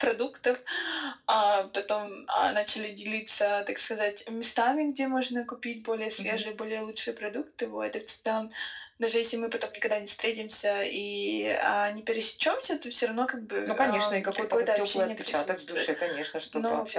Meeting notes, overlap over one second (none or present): present